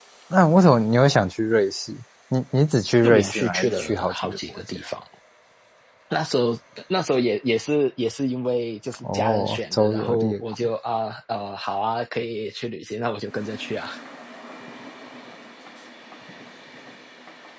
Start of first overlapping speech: 3.0 s

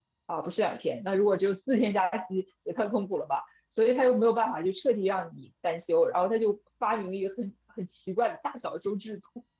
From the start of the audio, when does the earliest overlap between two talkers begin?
none

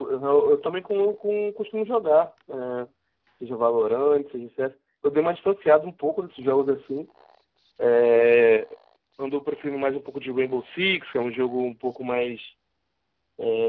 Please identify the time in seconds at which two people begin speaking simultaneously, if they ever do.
none

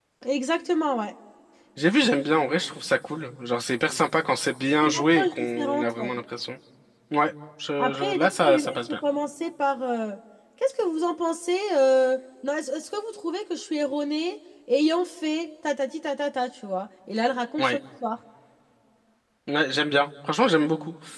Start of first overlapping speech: 4.8 s

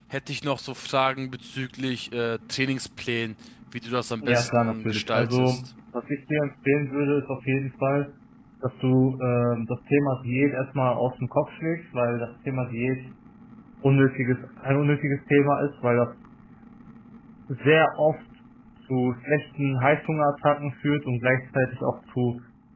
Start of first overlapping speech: 4.2 s

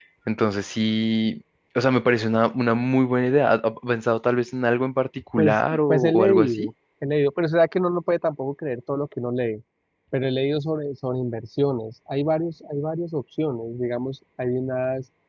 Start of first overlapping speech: 5.4 s

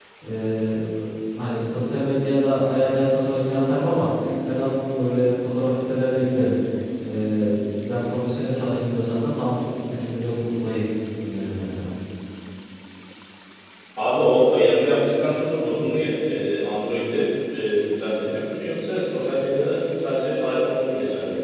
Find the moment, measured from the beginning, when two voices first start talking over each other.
none

